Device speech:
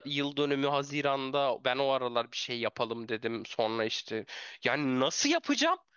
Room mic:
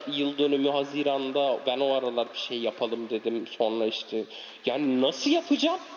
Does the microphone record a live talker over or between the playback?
No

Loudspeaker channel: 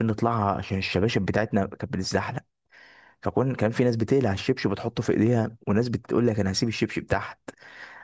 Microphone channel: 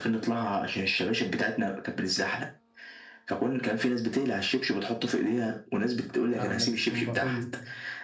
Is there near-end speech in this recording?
Yes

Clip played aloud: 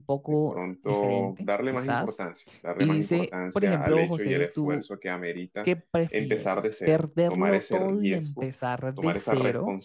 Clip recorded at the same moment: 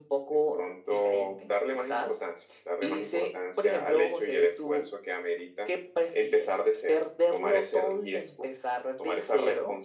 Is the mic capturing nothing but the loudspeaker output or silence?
Yes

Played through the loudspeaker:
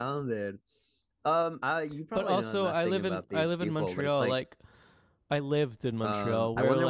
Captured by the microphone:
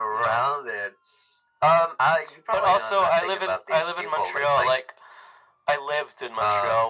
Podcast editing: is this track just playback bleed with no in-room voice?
Yes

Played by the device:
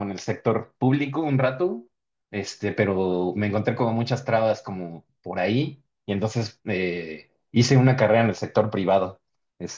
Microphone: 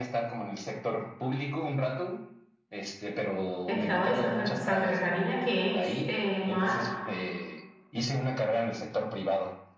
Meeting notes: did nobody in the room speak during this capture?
No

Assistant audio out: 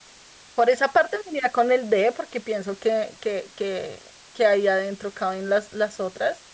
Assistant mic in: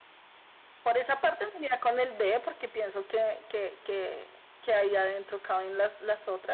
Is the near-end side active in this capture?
No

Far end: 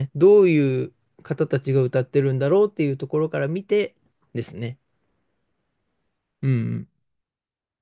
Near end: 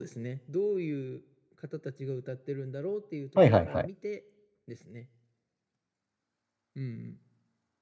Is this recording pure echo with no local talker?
No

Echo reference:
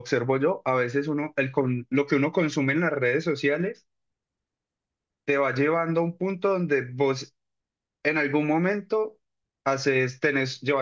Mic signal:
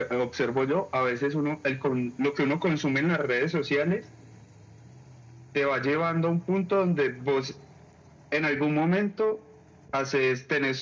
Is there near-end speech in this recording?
No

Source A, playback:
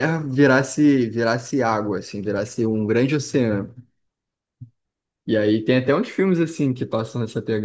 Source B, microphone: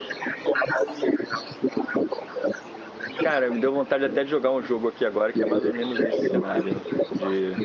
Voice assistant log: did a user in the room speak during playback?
Yes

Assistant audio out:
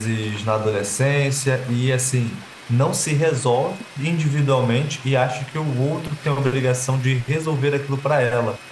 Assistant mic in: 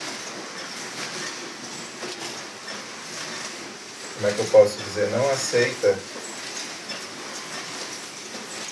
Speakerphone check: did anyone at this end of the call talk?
Yes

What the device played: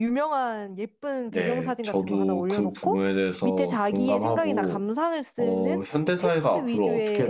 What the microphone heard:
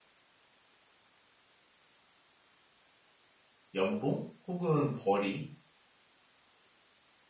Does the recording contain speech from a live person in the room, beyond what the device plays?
Yes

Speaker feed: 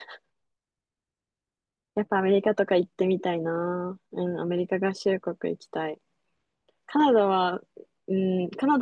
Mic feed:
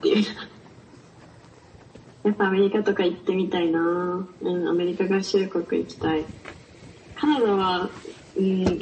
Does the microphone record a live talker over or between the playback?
No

